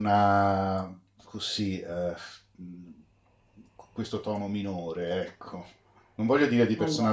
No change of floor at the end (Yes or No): Yes